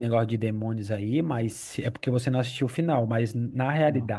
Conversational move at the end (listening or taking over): listening